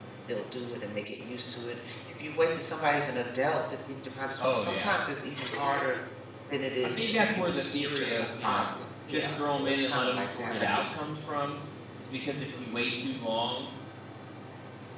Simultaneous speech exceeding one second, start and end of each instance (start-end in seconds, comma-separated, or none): 6.8-8.6, 9.1-10.7